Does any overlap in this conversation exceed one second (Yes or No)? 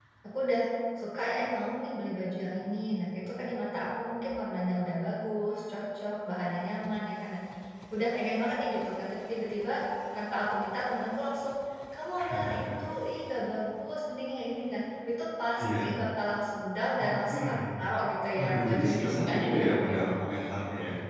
Yes